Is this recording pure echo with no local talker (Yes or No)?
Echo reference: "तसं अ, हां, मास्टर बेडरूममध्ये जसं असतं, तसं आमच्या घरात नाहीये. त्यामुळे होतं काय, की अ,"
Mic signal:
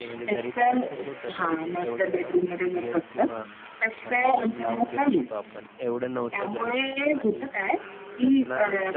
No